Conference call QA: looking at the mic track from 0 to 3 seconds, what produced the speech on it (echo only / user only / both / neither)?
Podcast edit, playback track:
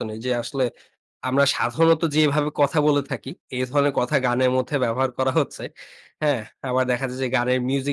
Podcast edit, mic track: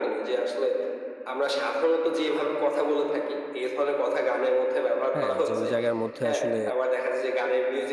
echo only